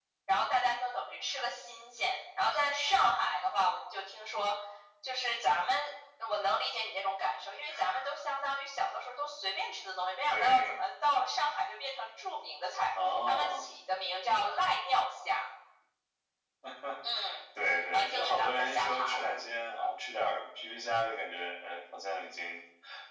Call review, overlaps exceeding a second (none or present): present